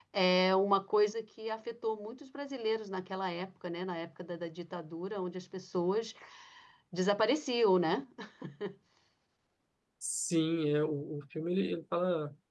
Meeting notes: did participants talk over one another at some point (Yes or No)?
No